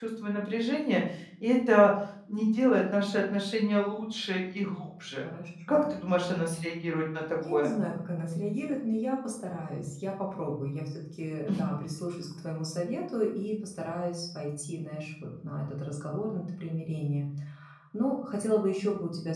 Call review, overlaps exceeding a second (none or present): none